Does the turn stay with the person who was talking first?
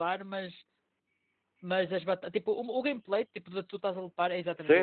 No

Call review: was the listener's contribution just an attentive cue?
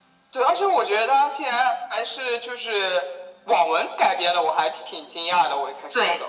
No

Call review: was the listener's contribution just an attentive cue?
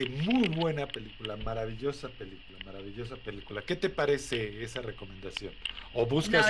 Yes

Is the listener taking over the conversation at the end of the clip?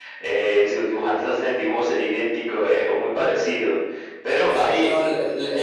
Yes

